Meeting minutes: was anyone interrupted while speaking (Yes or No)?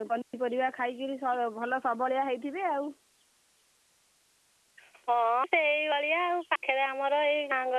No